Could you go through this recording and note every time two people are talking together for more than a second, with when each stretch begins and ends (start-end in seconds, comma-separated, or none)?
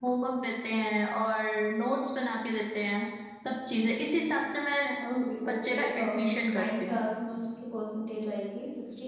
5.5-7.0